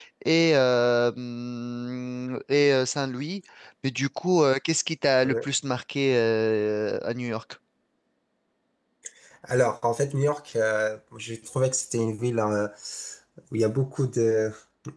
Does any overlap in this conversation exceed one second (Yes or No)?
No